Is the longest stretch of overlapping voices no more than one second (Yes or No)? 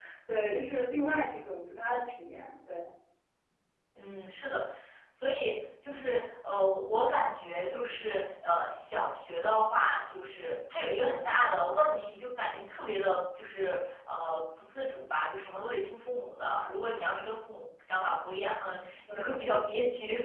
Yes